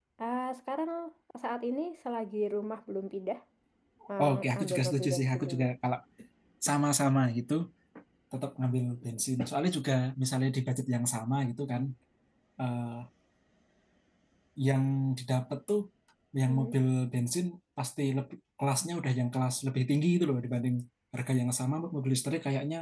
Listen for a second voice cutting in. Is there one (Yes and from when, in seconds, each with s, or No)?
Yes, from 4.2 s